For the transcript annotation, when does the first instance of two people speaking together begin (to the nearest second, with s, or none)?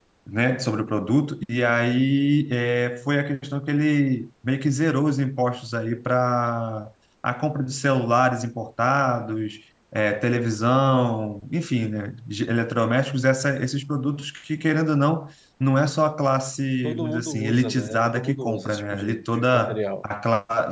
17 s